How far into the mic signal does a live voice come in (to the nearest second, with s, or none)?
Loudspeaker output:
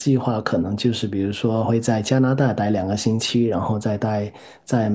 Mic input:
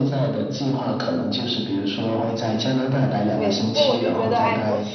3 s